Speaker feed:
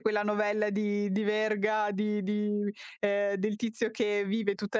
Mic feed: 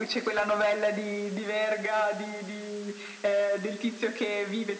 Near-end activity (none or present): none